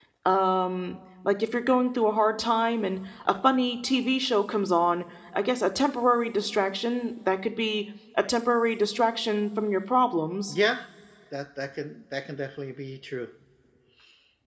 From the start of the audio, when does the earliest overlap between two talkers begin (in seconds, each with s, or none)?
none